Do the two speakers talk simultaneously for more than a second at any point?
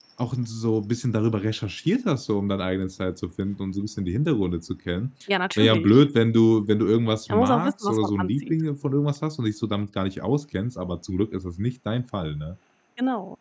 Yes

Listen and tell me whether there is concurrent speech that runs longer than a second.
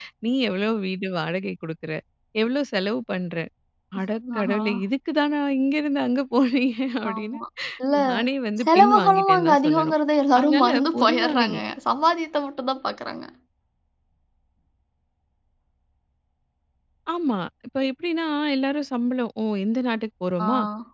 Yes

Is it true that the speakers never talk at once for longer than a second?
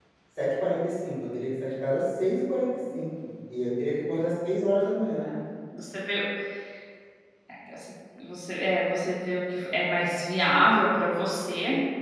Yes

